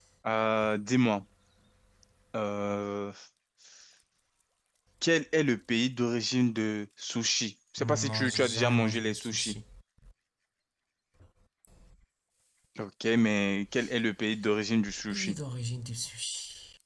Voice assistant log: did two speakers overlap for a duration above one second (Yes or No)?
Yes